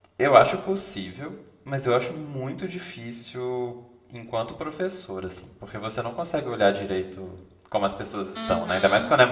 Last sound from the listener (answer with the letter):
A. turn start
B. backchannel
A